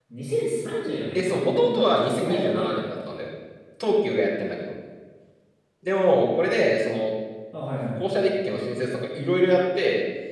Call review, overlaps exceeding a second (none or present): present